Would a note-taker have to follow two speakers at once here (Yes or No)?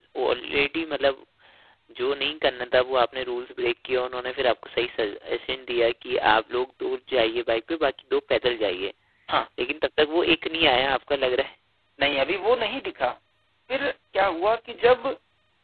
No